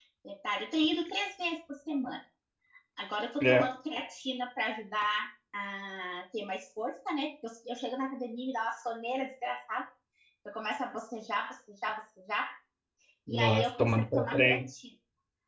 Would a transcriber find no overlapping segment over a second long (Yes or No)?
No